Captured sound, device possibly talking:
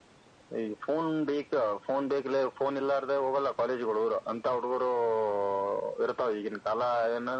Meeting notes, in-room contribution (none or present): none